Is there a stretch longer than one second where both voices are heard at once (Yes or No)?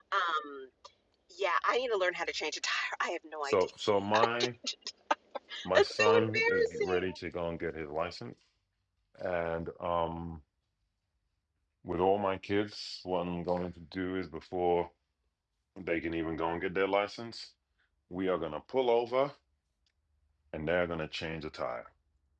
Yes